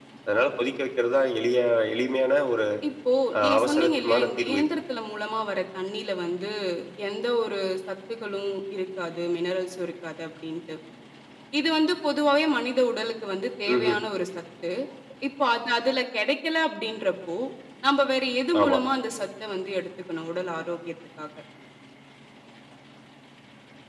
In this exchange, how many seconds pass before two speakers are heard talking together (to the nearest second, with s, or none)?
3 s